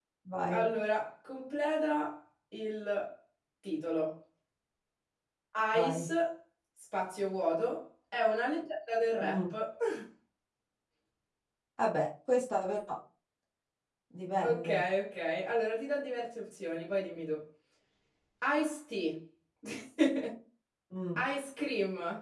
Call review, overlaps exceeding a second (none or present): none